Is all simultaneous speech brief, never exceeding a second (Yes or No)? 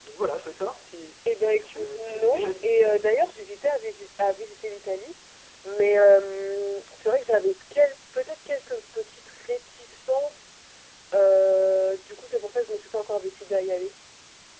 No